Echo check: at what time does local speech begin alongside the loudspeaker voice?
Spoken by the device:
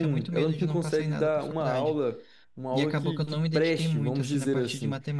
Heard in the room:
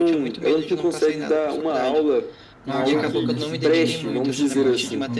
2.7 s

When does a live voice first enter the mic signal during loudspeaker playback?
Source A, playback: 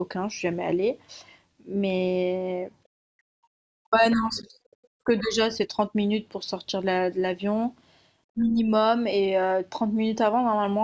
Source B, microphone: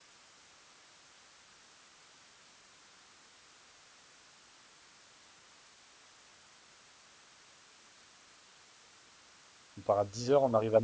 9.8 s

